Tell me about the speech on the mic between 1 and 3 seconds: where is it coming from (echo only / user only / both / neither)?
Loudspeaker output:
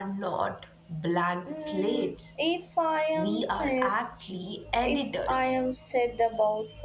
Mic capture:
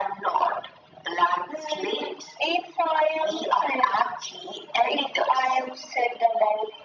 echo only